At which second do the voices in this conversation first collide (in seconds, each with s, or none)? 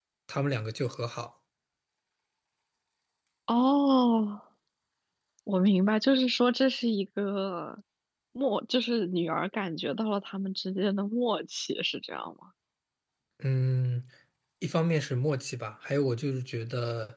none